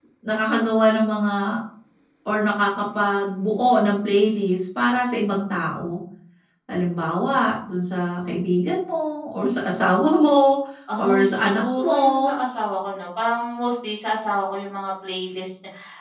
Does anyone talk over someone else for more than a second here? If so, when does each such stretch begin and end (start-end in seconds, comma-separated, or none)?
11.0-12.3